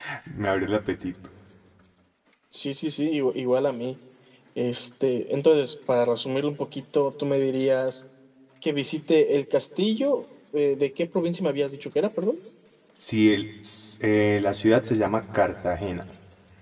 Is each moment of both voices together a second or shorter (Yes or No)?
Yes